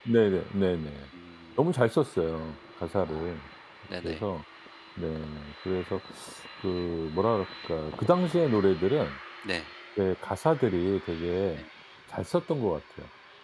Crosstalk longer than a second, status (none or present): none